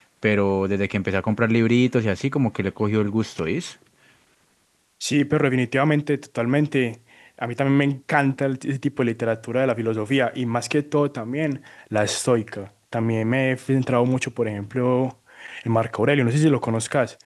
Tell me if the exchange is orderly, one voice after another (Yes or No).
Yes